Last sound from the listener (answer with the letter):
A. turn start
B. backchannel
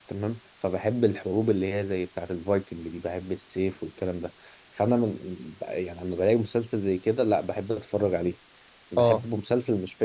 B